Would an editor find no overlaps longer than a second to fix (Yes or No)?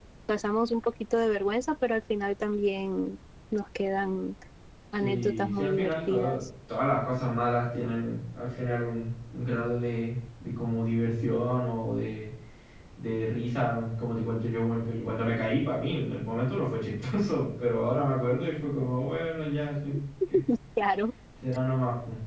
No